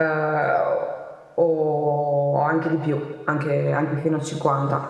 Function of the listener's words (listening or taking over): taking over